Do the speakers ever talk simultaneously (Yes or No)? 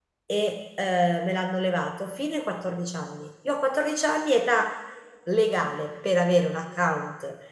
No